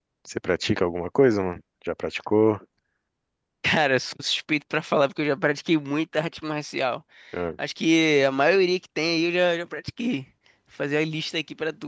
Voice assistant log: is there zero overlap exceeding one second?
Yes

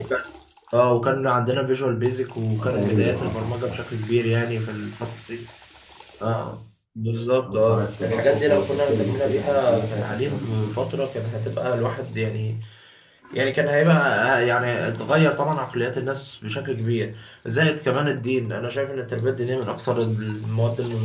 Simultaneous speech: Yes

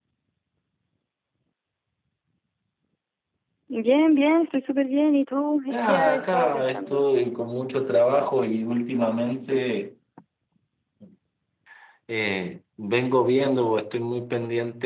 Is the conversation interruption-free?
No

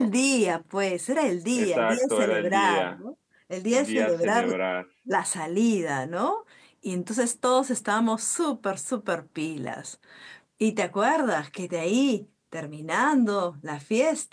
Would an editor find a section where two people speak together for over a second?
Yes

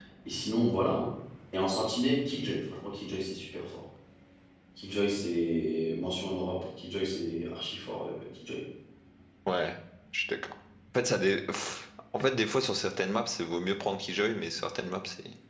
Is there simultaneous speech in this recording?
No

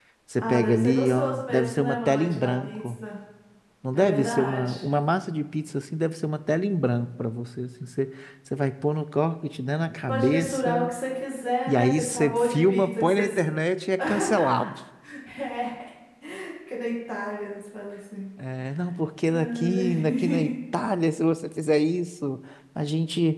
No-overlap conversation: No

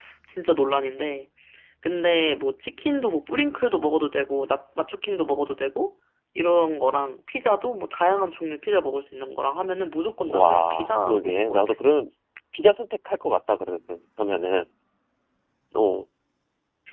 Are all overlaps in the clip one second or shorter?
No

